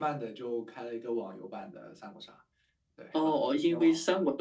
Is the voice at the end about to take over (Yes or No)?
Yes